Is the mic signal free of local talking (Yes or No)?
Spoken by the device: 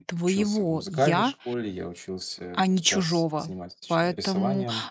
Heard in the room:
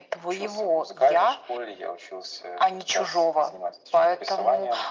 Yes